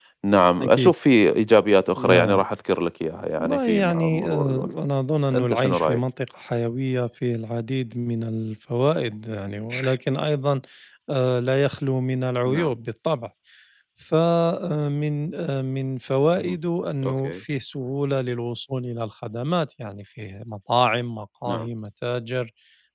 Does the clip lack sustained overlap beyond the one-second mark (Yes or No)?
No